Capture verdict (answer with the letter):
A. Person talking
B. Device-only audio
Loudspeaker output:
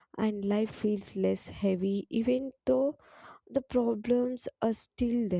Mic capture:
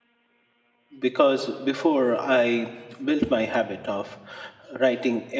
A